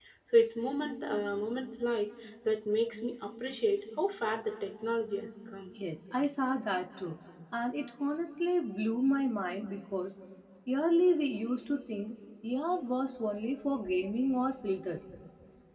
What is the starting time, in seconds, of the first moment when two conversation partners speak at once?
none

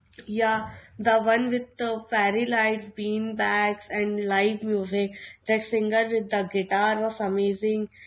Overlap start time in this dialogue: none

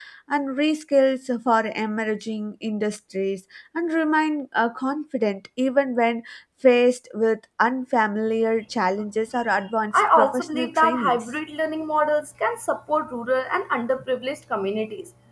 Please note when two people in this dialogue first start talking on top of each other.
9.9 s

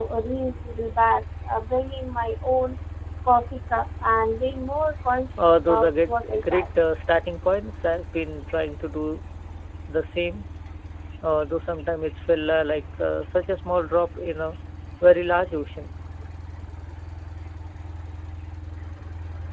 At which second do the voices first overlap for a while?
5.4 s

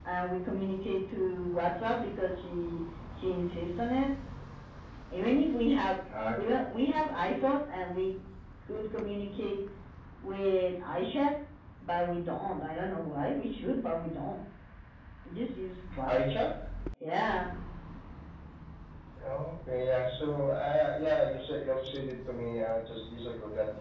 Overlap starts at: none

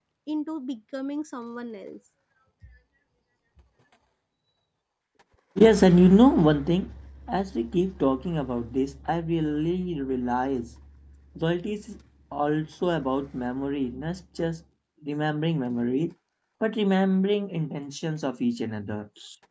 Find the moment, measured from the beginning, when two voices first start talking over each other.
none

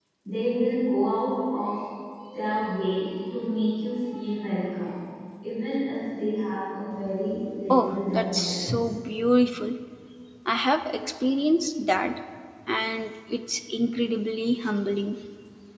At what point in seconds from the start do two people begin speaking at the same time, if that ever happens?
7.7 s

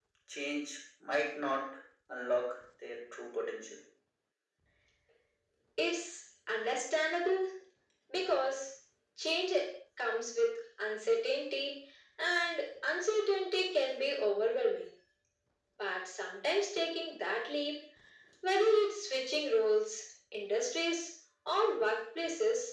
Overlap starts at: none

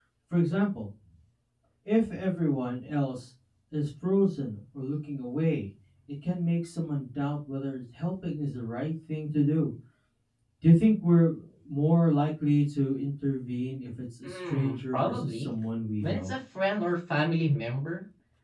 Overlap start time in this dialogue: 14.2 s

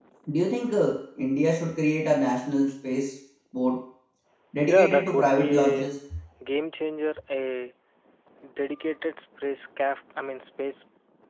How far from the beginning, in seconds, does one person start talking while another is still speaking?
4.7 s

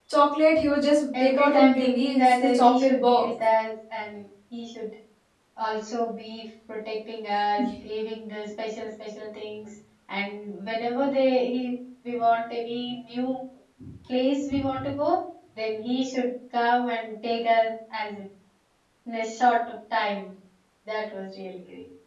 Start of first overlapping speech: 1.2 s

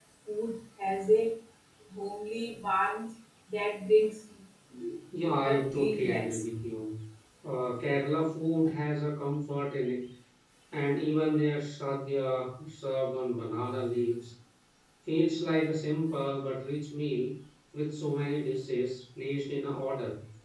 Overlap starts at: 5.2 s

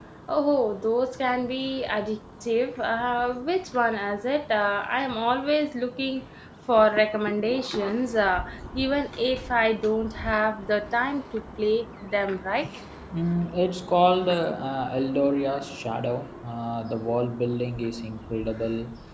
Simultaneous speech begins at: none

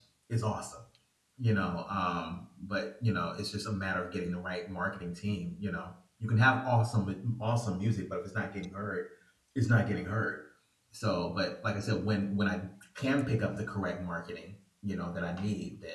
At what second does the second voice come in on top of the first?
none

